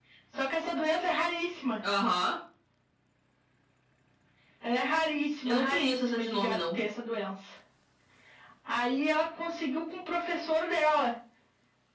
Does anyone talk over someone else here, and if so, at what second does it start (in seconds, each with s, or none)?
5.4 s